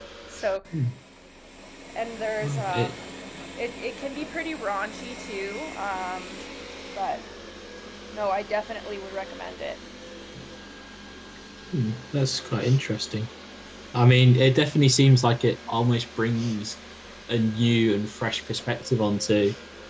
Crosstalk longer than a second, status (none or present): none